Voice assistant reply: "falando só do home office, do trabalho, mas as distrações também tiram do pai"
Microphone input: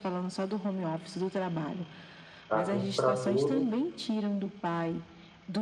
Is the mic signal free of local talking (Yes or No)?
No